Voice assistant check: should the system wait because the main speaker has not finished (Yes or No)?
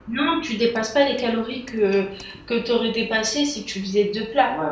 No